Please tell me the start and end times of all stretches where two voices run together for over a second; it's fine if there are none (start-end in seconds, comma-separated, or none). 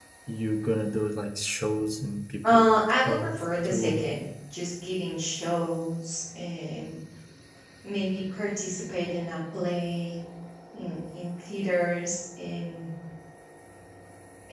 2.4-4.0